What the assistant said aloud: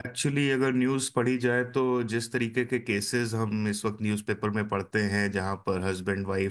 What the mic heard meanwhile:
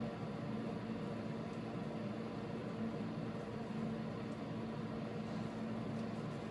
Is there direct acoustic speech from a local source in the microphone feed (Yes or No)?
No